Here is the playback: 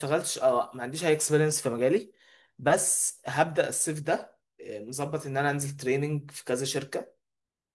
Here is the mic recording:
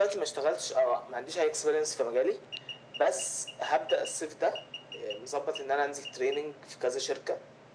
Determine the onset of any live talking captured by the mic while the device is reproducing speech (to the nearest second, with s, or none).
none